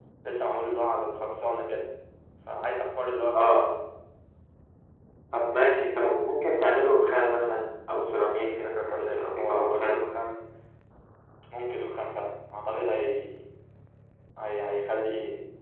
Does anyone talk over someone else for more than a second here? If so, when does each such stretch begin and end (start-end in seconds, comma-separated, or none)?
8.3-9.9